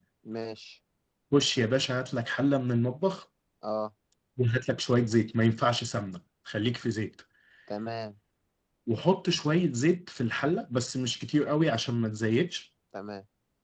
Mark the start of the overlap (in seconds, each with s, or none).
none